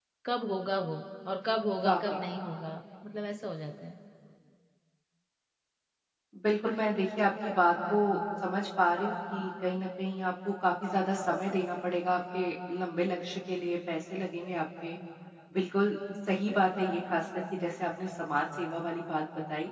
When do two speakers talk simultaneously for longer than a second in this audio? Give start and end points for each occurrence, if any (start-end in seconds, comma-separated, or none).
none